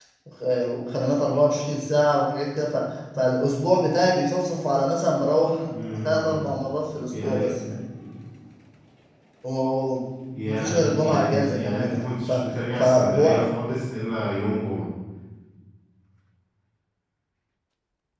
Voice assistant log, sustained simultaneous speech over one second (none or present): present